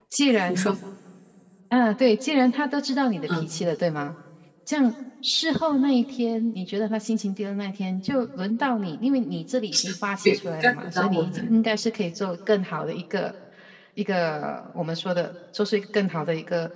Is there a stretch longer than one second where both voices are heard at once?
Yes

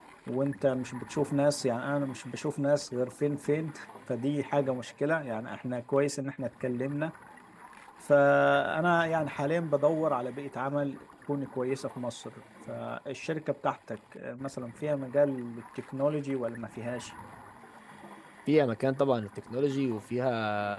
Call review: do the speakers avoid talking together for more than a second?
Yes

